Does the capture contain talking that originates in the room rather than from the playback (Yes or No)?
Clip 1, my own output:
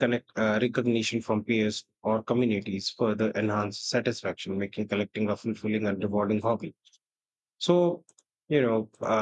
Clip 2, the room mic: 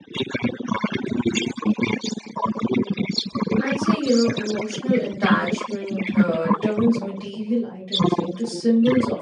Yes